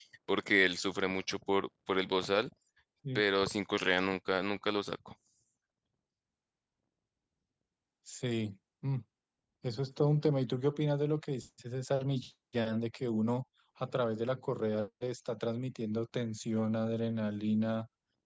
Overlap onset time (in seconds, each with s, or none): none